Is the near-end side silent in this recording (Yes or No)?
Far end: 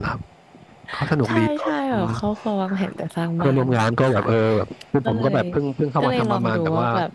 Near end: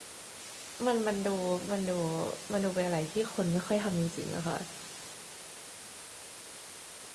No